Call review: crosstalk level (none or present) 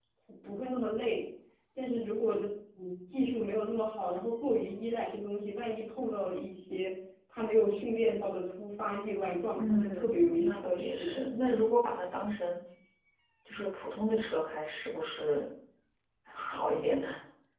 present